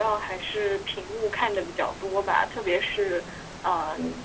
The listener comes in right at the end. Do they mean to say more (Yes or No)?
No